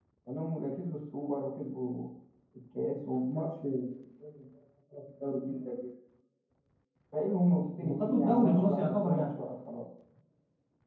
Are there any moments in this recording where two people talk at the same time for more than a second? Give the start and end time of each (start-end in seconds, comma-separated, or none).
7.8-9.3